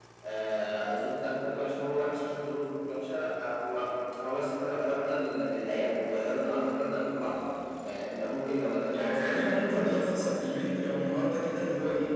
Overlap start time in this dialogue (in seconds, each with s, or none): 8.9 s